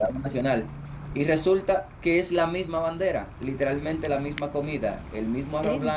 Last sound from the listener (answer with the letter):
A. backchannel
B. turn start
A